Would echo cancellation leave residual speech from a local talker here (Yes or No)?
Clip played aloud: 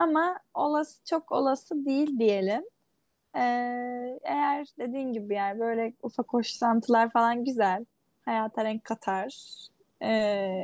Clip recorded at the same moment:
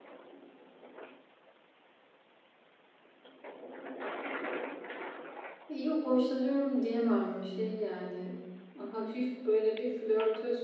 Yes